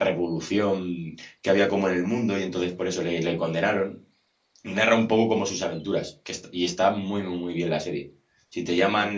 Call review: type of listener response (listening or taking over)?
listening